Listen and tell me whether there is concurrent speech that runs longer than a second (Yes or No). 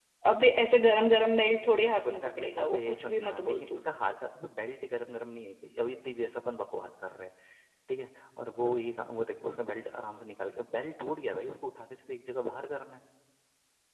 Yes